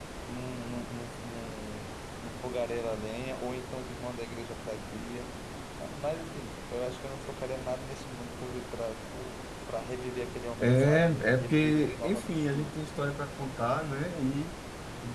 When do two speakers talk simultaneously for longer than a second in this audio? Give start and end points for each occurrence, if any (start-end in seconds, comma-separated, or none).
10.6-12.8